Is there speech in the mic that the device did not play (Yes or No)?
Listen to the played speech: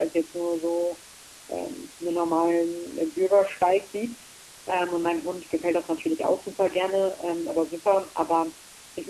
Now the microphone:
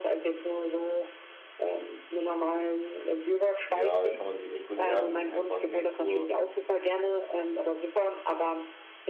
Yes